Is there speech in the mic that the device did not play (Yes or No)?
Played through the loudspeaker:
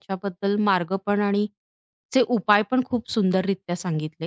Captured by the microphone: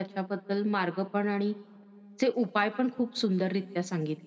No